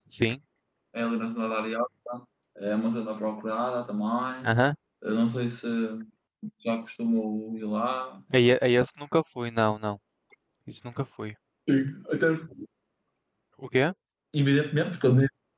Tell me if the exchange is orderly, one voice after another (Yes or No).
Yes